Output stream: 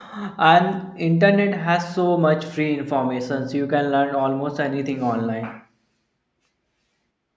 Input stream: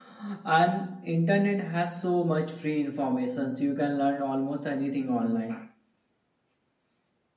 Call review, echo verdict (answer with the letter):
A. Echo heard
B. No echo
A